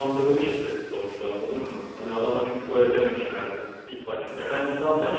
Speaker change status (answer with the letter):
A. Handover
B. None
B